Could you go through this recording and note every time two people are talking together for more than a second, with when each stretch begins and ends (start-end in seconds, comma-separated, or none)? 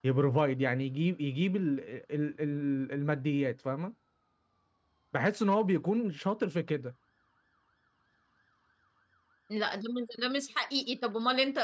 none